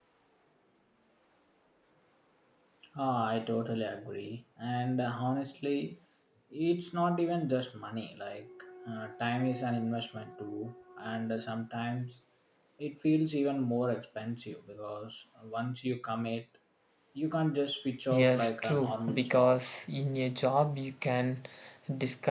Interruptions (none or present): present